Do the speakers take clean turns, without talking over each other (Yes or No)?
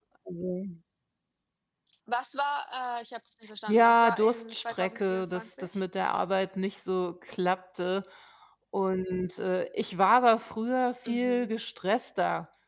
No